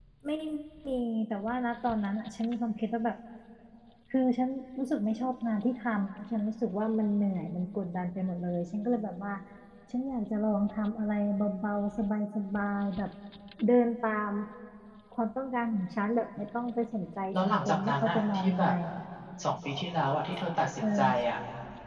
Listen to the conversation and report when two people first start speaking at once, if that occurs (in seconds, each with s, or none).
17.3 s